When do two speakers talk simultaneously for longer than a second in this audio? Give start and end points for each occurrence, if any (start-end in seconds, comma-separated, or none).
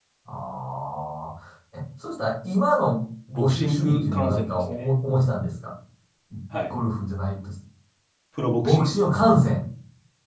3.4-4.8